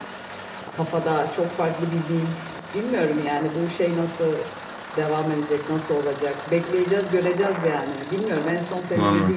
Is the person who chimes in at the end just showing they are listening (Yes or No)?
Yes